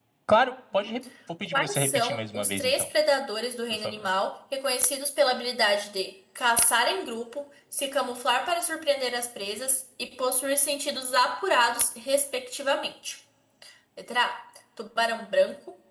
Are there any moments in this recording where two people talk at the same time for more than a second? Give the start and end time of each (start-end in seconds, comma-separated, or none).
1.5-2.9